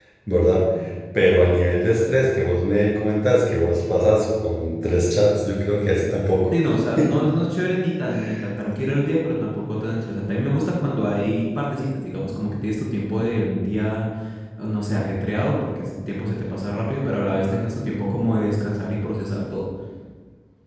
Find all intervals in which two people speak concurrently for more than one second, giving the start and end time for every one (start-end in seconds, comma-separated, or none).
none